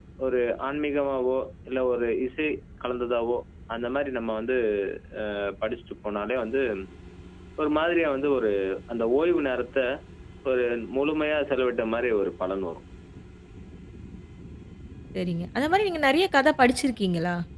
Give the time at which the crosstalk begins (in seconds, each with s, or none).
none